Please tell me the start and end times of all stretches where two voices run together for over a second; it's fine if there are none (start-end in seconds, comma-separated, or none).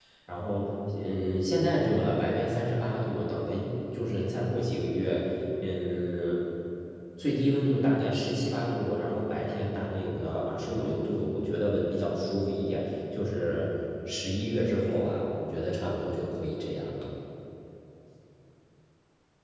none